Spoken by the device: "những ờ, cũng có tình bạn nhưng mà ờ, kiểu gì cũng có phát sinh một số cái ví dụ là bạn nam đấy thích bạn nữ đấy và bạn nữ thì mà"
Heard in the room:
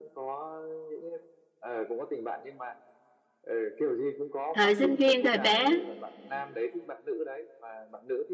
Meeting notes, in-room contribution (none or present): present